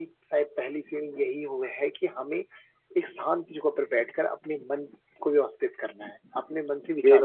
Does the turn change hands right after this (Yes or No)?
No